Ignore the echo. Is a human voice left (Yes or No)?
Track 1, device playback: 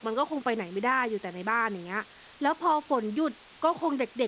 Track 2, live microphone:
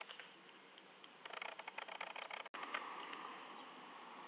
No